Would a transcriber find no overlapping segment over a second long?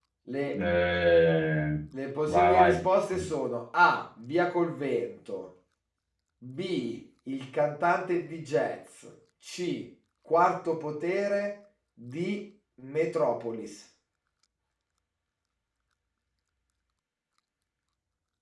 Yes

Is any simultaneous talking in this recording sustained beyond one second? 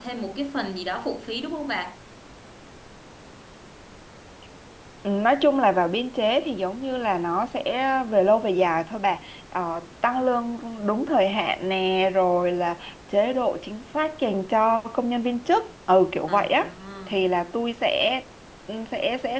No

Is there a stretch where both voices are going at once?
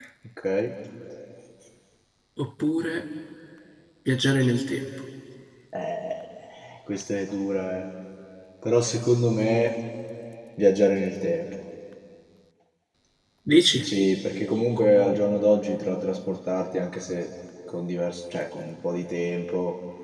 No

